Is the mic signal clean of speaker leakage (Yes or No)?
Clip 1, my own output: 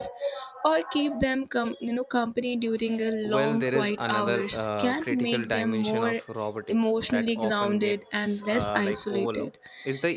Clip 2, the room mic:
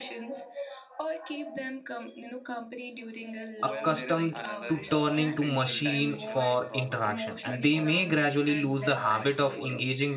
No